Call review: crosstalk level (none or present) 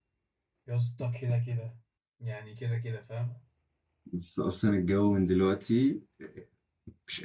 none